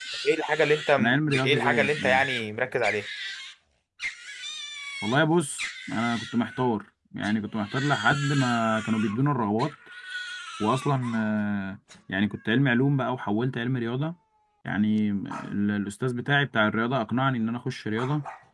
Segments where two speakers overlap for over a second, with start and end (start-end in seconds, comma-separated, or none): 1.0-2.2